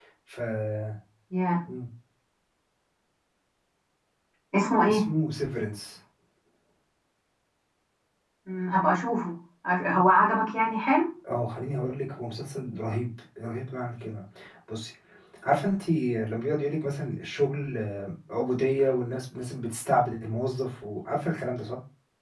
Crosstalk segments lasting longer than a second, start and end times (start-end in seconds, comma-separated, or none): none